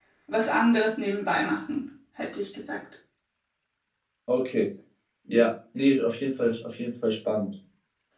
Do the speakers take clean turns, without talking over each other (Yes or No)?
Yes